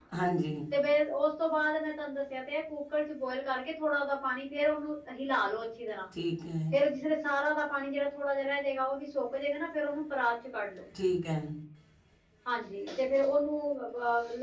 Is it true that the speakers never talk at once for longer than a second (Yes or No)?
Yes